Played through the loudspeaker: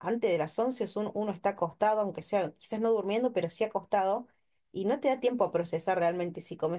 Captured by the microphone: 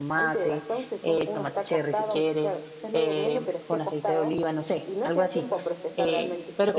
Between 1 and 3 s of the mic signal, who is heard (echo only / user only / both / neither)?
both